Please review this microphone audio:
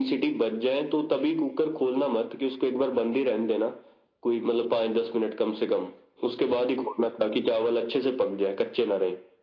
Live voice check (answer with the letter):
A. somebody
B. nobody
B